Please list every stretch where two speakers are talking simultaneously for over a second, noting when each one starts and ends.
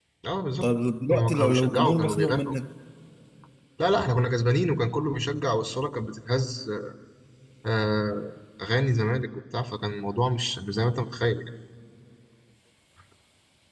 1.1-2.5

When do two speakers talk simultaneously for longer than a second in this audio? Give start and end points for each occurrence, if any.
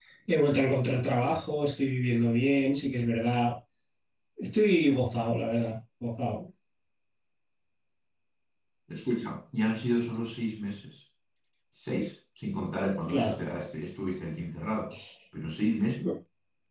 none

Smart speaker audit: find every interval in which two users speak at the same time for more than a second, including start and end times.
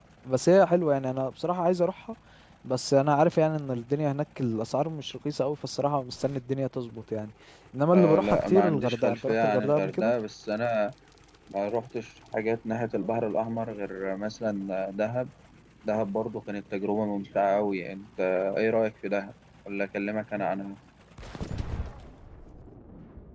7.9-10.1

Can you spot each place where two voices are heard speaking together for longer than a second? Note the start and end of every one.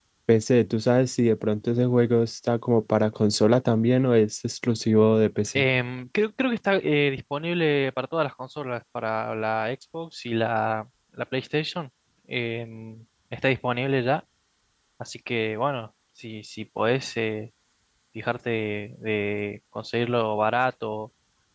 none

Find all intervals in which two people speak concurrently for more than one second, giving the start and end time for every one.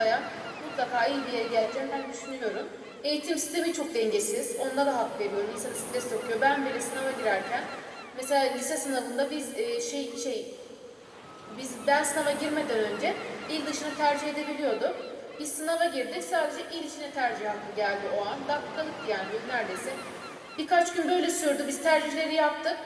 none

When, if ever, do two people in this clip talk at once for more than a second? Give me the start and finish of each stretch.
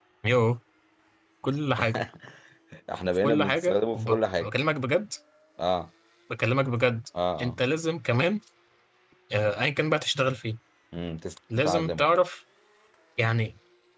3.2-4.5

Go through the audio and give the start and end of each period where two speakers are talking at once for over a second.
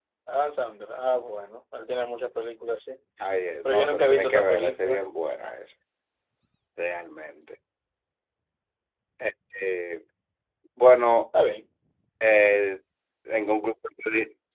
3.6-5.0

